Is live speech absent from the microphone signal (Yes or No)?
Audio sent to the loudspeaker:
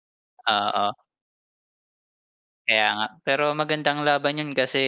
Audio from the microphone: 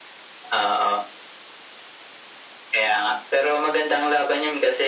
Yes